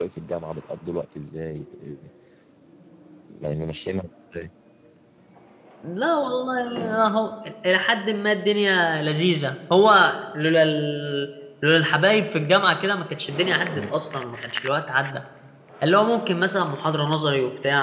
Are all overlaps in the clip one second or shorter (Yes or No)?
Yes